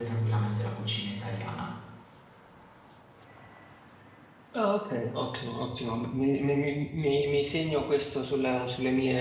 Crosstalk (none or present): none